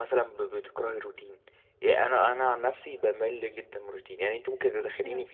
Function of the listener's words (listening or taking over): listening